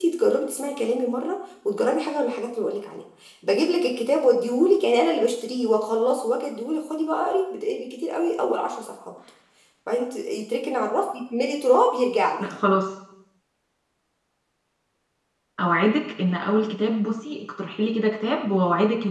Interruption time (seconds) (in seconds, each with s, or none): none